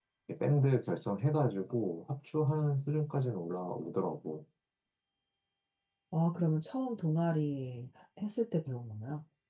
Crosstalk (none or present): none